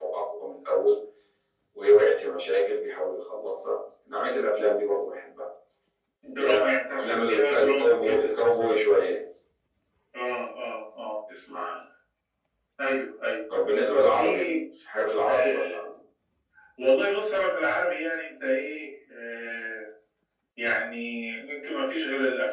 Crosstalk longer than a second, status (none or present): present